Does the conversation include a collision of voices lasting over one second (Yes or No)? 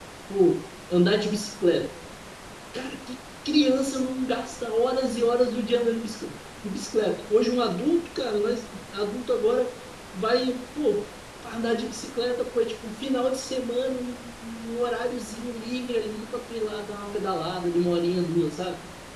No